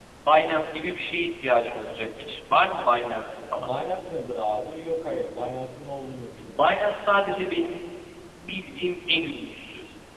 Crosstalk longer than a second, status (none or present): none